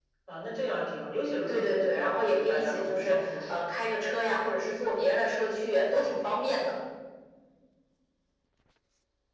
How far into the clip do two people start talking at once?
1.5 s

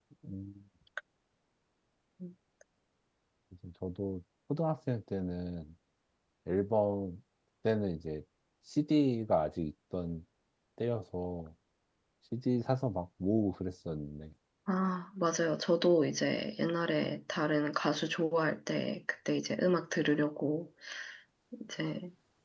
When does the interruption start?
none

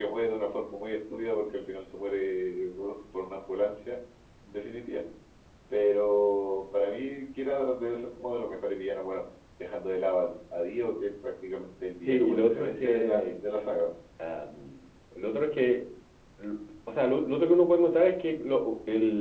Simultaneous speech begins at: 12.1 s

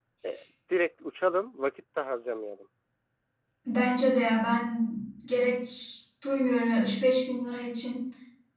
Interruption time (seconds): none

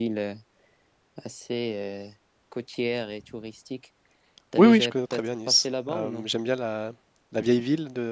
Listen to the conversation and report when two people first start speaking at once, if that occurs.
4.6 s

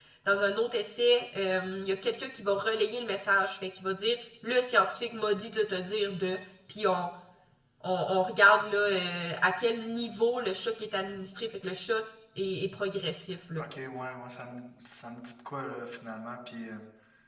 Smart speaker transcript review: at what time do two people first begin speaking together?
none

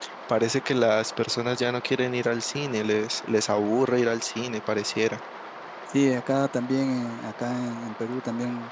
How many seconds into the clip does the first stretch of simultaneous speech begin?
none

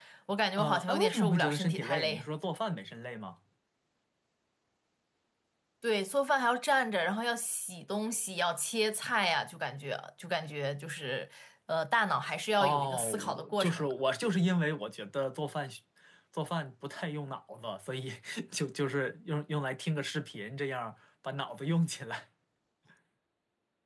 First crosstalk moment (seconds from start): 0.6 s

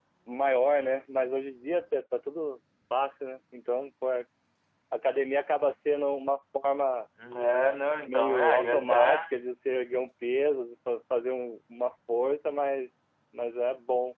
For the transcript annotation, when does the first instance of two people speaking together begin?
8.0 s

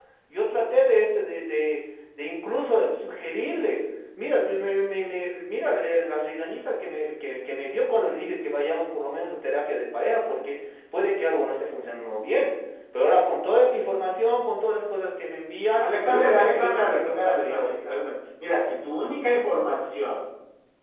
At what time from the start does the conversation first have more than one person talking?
15.8 s

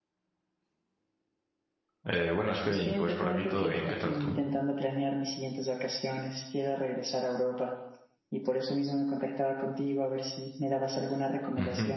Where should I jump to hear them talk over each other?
2.7 s

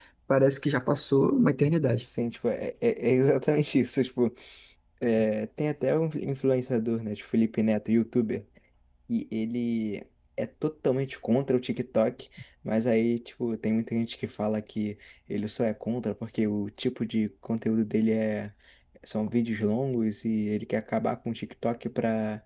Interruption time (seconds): none

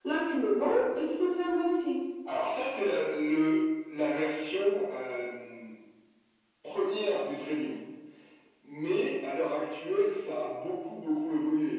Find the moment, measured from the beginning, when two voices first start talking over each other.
none

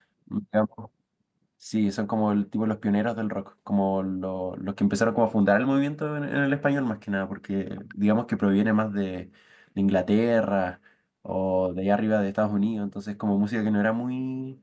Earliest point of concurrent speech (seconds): none

